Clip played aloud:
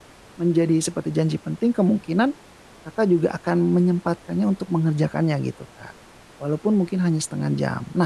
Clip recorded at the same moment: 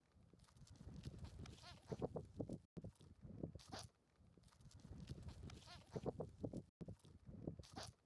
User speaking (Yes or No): No